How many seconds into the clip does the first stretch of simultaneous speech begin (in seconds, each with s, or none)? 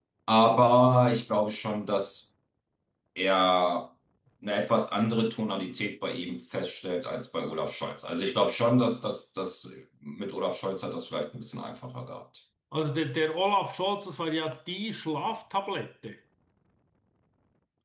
none